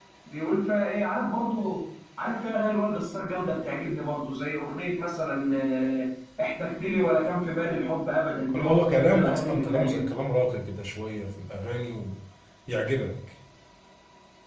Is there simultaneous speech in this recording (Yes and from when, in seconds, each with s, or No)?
Yes, from 8.5 s